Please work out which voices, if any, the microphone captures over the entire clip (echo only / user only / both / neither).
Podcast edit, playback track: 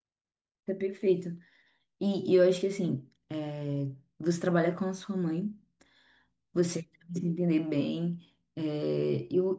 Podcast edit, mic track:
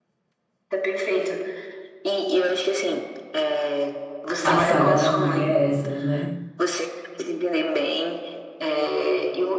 both